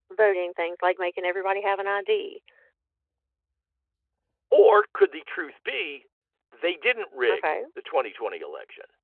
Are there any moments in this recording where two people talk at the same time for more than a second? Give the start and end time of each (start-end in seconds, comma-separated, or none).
none